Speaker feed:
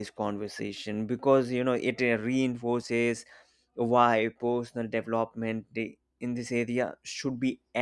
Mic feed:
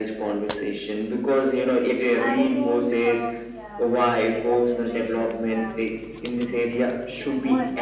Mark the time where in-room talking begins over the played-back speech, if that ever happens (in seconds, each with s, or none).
2.2 s